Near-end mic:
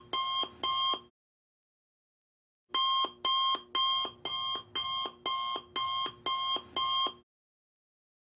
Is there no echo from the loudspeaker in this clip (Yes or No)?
Yes